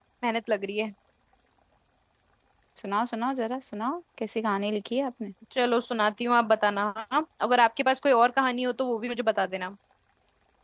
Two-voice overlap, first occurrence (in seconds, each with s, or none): none